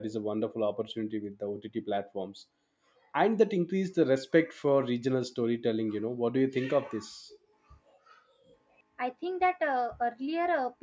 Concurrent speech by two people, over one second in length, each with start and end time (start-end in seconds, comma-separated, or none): none